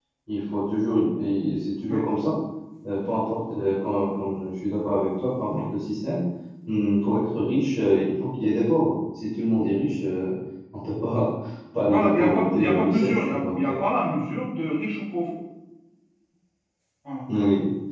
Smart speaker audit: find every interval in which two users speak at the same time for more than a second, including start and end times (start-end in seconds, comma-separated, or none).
11.9-13.8